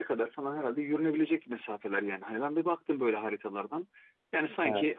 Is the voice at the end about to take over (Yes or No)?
No